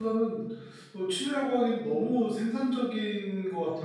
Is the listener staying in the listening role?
No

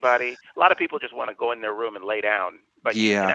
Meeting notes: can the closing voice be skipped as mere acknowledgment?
Yes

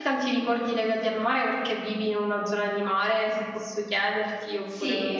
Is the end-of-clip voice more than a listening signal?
Yes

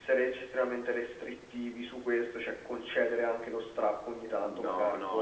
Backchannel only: No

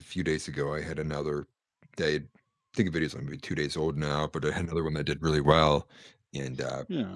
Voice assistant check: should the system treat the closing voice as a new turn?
No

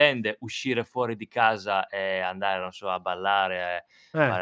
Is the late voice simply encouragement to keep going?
Yes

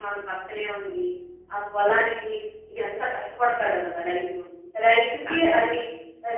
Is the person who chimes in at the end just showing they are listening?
Yes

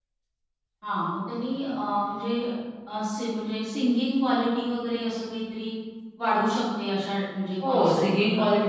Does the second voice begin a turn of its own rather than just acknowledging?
Yes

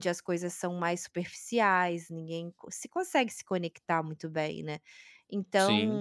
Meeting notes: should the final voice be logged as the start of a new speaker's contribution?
No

